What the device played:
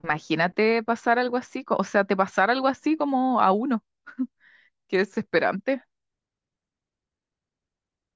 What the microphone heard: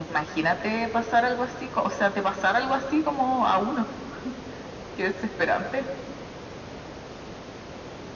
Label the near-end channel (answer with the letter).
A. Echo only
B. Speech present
A